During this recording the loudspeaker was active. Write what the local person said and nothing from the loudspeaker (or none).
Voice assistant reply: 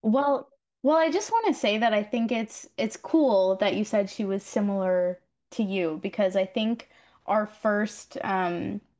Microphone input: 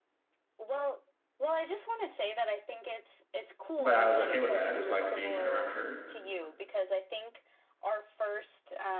but I was okay with that. I just liked being around her.